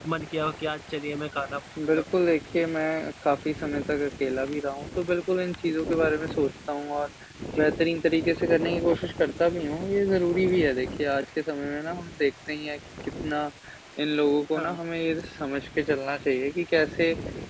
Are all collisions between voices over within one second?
Yes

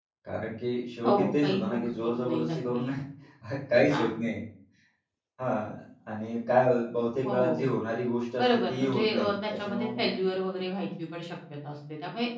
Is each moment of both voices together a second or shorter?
No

